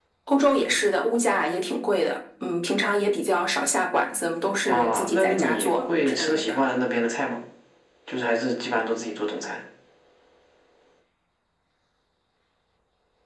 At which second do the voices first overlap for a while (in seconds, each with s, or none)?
4.7 s